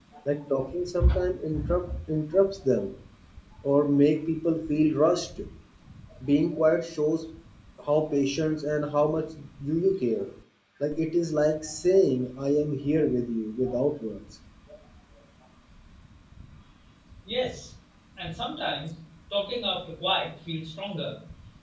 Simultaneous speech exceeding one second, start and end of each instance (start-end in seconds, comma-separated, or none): none